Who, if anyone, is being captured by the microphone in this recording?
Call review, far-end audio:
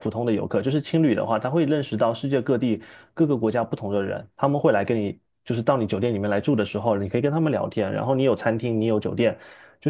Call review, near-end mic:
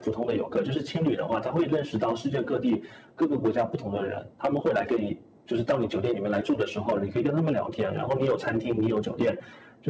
echo only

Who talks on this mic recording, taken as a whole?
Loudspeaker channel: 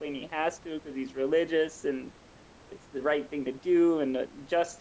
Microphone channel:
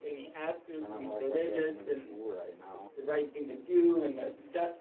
both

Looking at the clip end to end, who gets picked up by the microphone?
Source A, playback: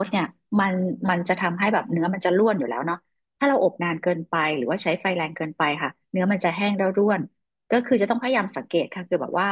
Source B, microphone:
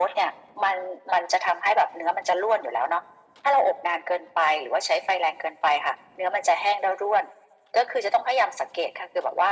echo only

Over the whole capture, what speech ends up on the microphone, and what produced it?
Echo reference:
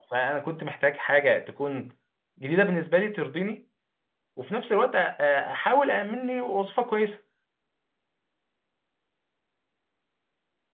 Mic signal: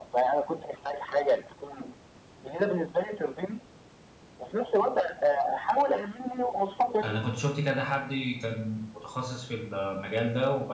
both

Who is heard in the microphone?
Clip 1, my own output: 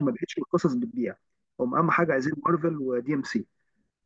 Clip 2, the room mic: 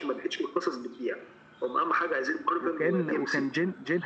both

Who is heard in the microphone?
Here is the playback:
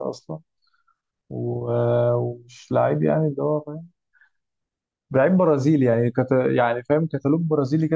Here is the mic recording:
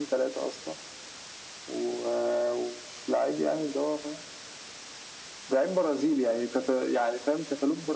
echo only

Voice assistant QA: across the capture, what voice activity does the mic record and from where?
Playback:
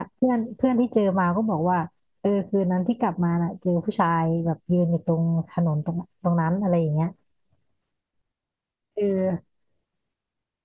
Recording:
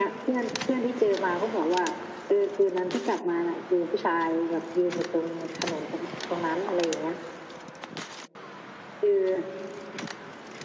echo only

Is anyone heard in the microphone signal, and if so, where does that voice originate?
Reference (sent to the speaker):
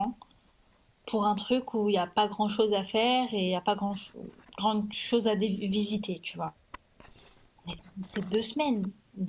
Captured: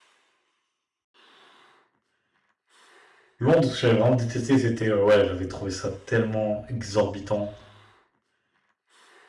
user only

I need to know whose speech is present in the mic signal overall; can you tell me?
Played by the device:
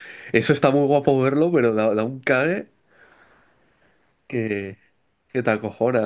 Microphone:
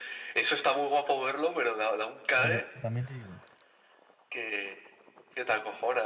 both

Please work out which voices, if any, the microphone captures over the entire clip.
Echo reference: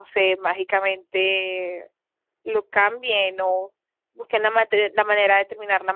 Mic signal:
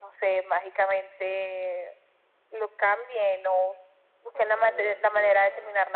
both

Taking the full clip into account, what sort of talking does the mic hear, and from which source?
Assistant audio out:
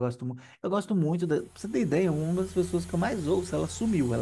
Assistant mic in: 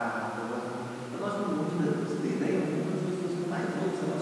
echo only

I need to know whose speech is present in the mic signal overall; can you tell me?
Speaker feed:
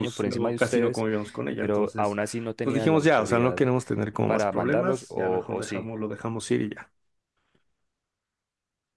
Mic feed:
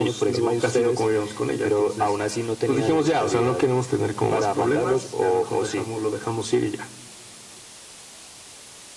echo only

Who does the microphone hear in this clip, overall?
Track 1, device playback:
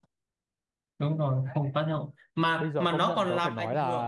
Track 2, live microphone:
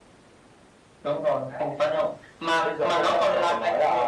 echo only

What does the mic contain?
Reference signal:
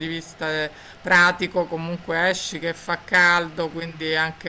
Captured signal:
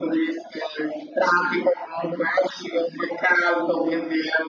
echo only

